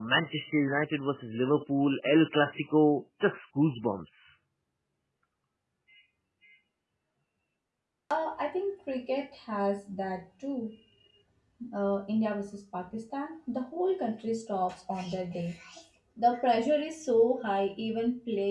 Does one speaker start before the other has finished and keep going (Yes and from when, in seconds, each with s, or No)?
No